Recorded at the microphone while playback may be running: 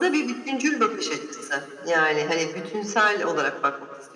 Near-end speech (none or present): none